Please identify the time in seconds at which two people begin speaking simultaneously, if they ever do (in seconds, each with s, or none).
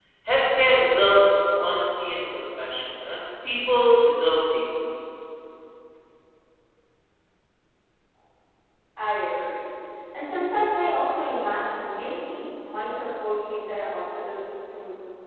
none